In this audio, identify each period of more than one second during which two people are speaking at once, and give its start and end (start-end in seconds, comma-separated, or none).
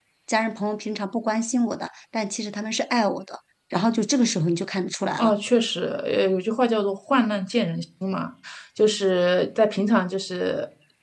none